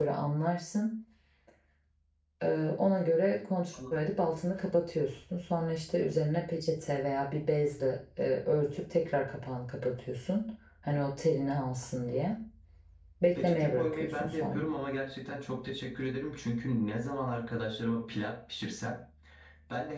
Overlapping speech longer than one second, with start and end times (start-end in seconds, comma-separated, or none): 13.3-14.6